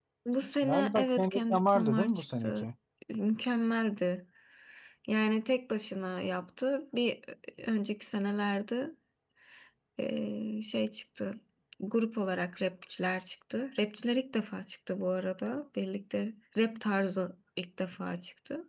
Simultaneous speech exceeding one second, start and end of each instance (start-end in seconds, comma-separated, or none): 0.6-2.7